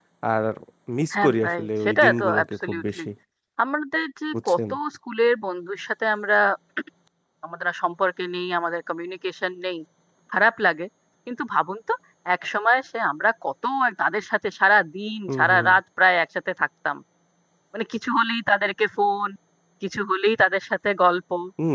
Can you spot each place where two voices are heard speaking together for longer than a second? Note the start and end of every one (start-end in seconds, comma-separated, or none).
1.1-3.0